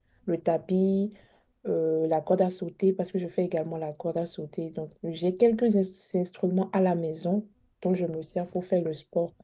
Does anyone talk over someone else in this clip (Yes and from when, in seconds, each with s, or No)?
No